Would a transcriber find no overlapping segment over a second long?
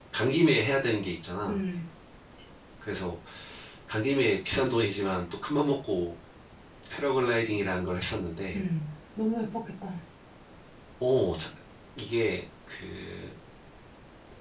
Yes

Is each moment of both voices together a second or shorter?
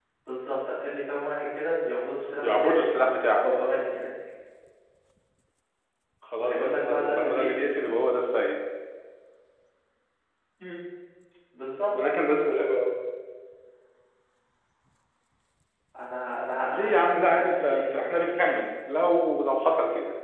No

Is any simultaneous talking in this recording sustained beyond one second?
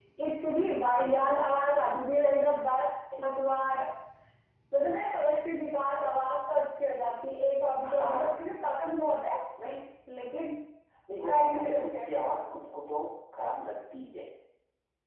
Yes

